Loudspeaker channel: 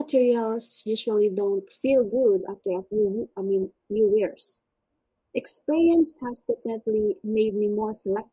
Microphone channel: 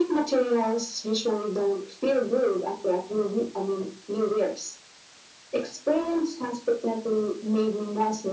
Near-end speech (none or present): none